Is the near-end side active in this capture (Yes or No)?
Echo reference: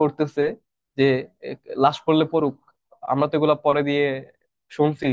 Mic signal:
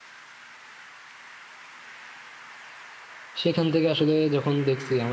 Yes